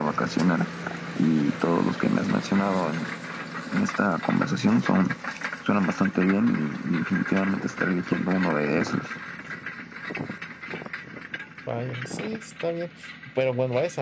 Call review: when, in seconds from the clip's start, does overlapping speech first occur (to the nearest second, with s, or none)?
none